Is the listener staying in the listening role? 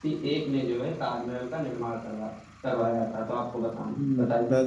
No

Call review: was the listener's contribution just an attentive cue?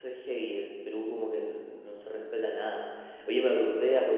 Yes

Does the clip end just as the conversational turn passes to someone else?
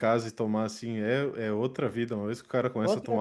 No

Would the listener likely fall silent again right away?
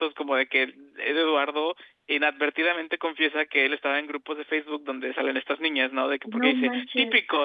Yes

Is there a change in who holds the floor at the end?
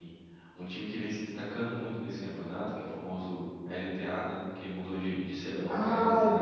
Yes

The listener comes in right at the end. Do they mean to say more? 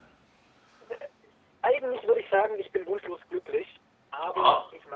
No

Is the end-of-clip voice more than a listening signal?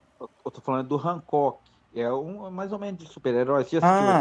Yes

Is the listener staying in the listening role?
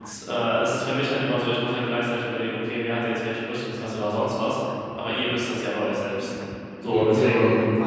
No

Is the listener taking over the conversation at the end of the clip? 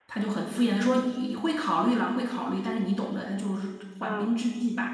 No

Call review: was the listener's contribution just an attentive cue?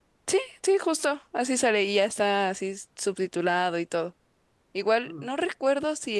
Yes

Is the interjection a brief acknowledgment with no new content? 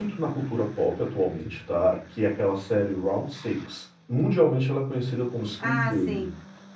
No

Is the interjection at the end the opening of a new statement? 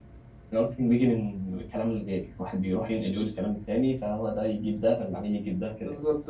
Yes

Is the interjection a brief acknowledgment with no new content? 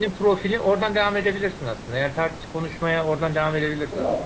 No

